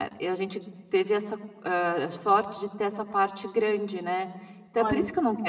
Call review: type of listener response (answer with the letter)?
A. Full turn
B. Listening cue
B